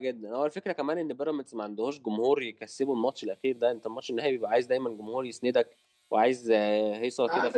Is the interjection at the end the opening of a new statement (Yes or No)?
Yes